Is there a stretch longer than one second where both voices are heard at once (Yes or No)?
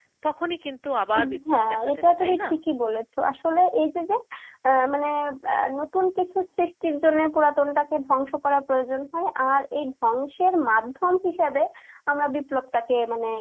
Yes